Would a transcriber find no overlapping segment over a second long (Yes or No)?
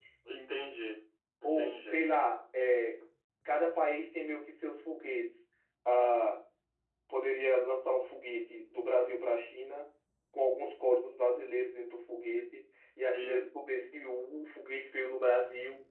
Yes